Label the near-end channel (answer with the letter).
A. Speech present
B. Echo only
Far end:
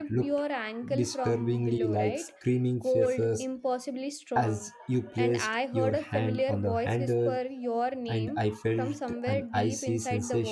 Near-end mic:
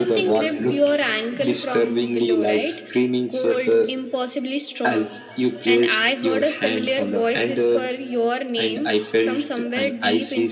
B